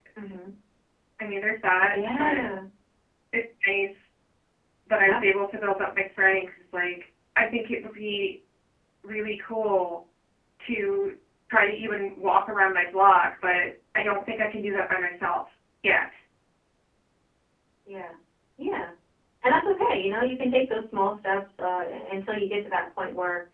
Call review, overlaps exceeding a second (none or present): none